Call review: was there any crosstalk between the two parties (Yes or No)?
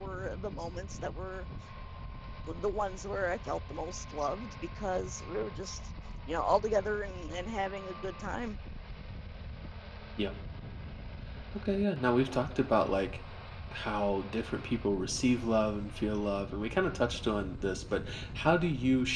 No